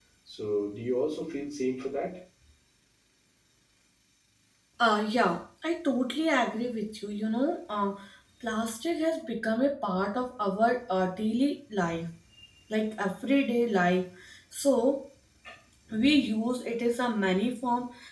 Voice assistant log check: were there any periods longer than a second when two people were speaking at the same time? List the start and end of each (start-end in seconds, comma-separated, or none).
none